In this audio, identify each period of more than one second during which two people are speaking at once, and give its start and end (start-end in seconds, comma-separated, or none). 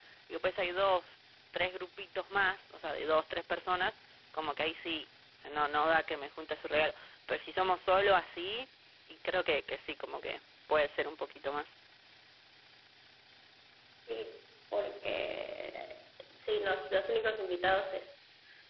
none